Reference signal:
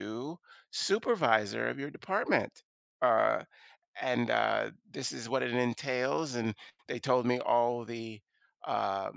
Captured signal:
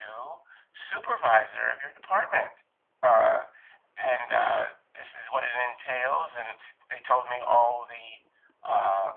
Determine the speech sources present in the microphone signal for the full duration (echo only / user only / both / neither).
echo only